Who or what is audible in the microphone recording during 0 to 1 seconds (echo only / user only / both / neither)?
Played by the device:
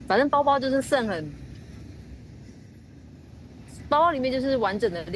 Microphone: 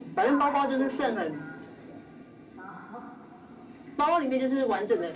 both